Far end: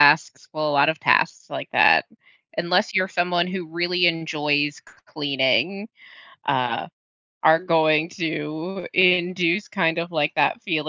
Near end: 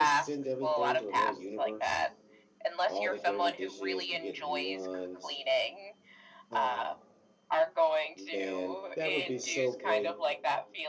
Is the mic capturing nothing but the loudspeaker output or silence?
No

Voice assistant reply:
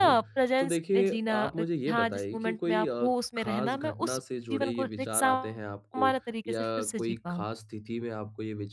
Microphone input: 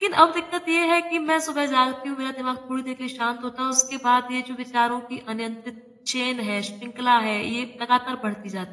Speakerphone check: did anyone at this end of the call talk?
Yes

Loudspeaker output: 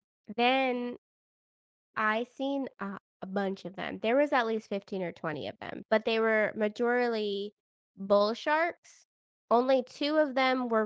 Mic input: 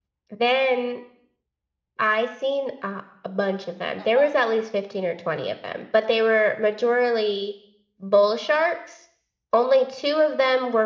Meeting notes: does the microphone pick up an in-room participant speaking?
Yes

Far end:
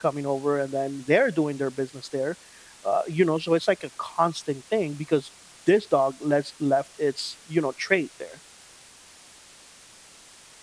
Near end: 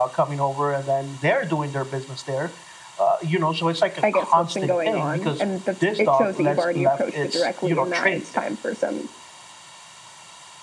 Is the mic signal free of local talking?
No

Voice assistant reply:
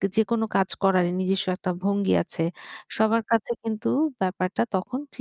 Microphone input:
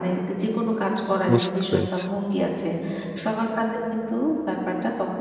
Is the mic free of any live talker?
No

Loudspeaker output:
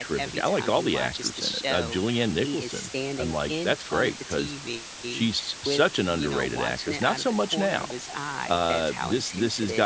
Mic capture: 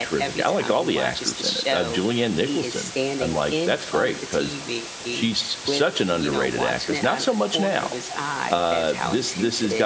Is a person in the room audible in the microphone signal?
No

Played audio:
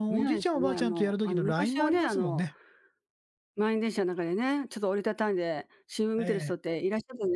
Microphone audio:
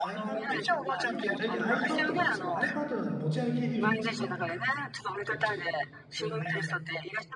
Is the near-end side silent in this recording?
No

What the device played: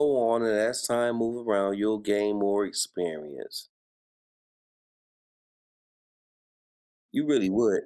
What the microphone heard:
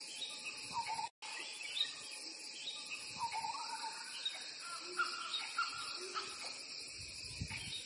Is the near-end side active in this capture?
No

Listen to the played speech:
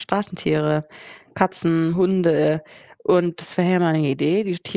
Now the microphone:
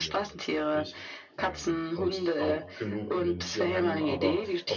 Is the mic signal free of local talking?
No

